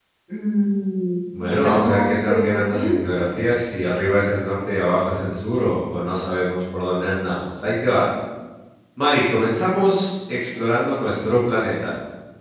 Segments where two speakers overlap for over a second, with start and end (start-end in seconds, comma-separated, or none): 1.4-3.0